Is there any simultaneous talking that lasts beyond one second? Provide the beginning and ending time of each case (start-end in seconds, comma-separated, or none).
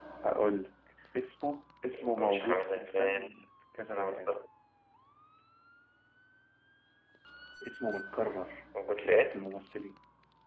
1.9-3.3